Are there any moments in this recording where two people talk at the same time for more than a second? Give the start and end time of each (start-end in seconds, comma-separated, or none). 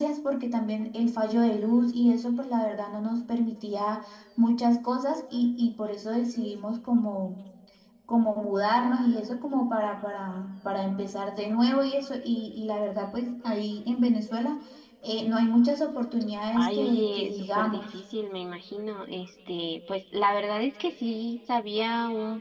16.6-17.9